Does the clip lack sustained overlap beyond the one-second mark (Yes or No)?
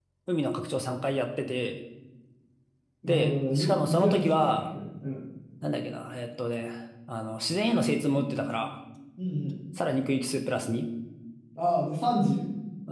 No